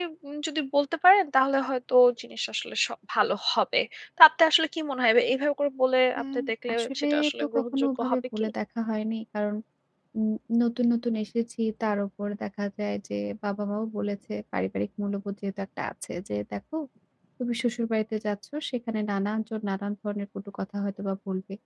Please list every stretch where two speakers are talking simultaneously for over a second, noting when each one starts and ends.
6.7-8.5

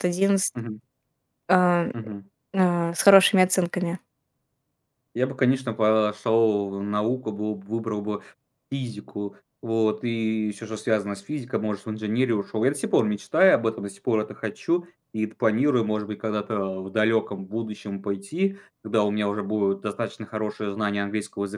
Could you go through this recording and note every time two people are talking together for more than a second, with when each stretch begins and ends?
none

